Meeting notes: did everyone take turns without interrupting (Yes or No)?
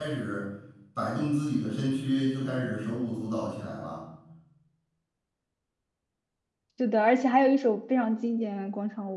Yes